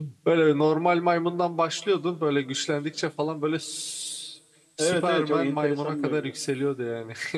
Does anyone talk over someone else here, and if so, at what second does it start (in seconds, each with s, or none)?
4.8 s